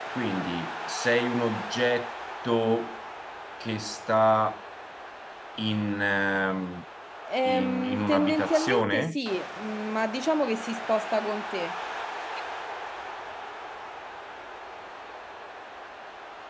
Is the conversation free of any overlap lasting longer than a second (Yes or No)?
No